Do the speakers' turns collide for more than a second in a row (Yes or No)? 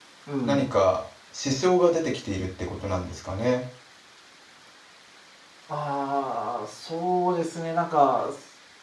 No